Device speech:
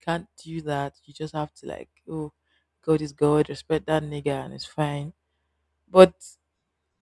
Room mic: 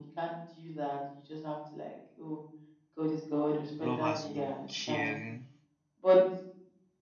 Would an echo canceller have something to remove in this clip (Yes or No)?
Yes